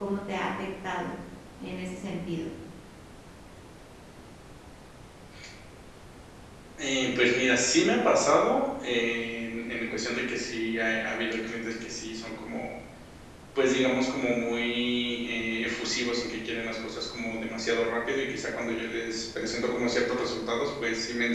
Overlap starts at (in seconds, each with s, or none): none